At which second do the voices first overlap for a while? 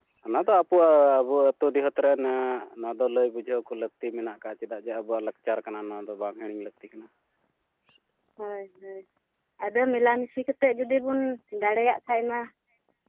none

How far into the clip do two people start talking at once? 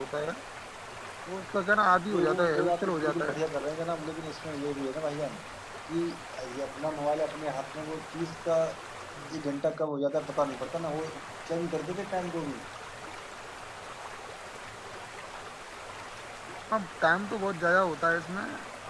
2.1 s

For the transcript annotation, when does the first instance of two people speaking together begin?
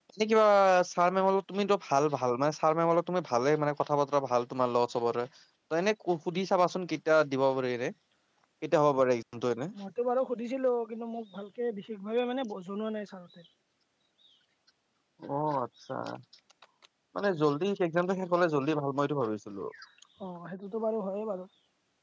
none

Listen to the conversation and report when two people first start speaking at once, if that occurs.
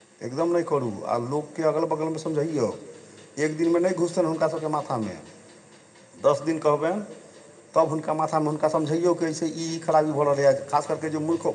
none

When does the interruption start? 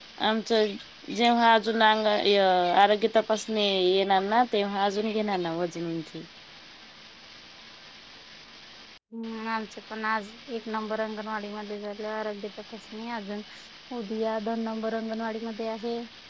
none

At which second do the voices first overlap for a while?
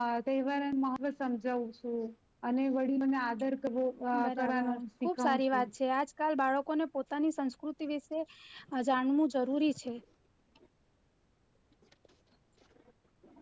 4.4 s

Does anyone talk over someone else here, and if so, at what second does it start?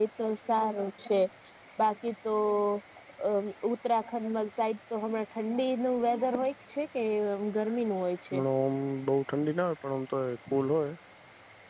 none

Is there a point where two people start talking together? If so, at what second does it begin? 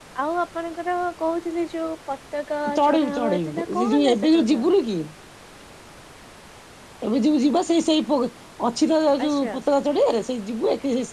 2.8 s

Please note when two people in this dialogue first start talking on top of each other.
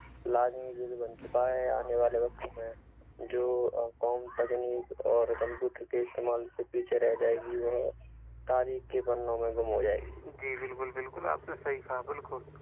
none

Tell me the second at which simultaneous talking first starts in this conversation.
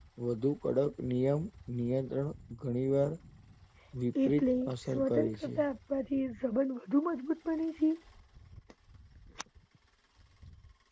4.2 s

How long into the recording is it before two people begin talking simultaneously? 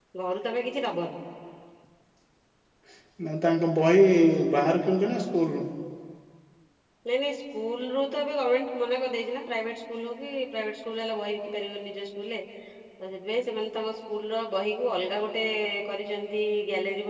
none

